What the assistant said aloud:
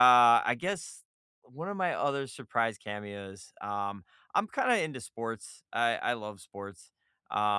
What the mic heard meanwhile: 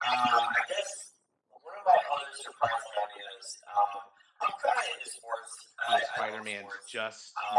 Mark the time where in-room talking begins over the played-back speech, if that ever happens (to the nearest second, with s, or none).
6 s